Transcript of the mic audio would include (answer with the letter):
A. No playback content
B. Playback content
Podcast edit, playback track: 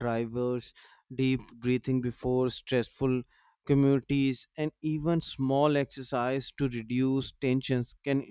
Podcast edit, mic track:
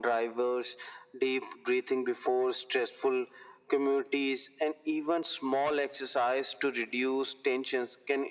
B